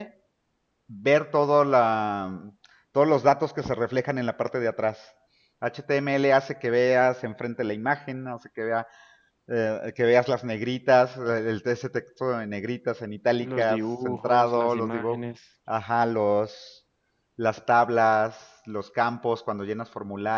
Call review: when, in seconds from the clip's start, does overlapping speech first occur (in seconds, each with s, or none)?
13.4 s